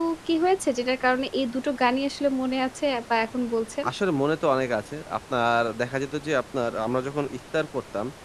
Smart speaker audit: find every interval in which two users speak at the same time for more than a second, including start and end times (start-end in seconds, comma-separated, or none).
none